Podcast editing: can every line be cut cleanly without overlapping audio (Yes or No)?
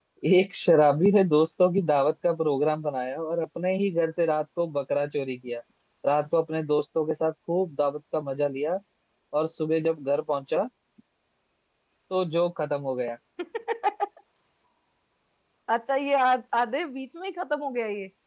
Yes